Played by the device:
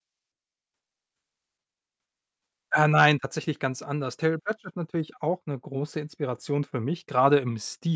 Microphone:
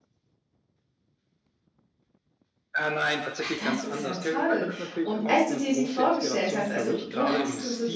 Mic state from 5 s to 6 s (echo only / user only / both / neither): both